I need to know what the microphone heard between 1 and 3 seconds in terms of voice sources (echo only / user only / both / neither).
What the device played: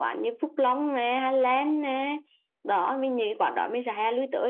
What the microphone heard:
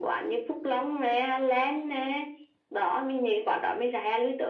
echo only